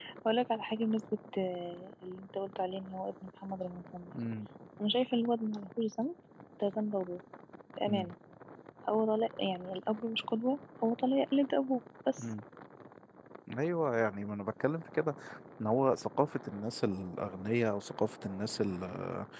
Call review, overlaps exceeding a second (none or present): none